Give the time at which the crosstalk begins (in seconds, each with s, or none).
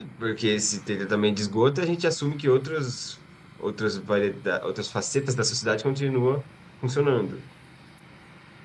none